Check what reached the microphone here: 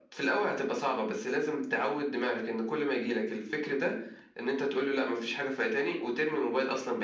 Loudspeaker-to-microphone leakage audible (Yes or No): Yes